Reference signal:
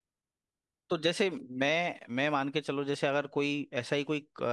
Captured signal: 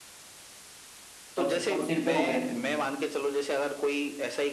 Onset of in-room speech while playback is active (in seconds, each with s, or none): 1.4 s